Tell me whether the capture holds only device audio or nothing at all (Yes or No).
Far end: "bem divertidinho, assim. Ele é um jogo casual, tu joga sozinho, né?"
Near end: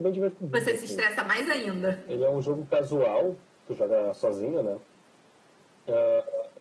No